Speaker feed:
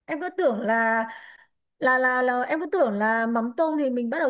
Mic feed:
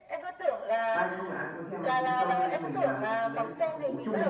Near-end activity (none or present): present